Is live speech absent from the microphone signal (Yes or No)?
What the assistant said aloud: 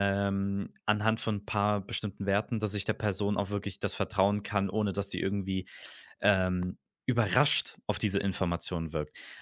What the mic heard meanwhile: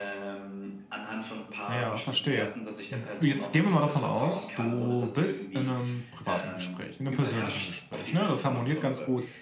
No